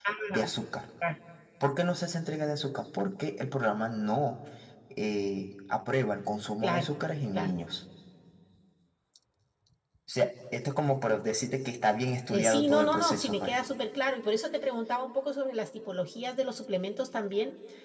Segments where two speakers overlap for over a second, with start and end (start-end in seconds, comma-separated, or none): 12.3-13.6